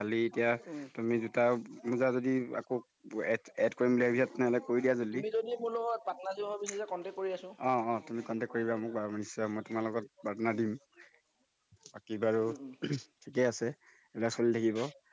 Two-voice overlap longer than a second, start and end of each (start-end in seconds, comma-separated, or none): none